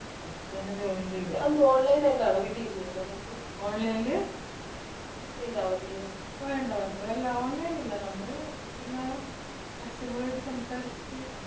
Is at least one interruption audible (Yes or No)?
No